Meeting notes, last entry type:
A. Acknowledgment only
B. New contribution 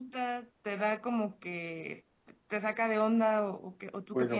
B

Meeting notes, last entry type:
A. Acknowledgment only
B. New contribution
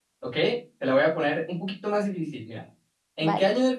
A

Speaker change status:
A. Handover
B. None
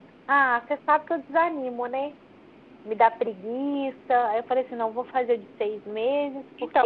A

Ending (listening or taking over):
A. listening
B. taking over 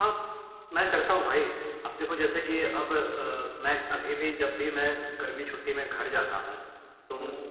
A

